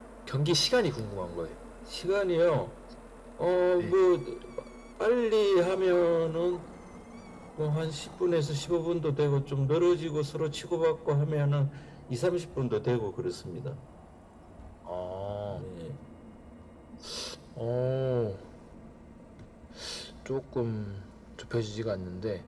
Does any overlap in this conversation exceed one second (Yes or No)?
No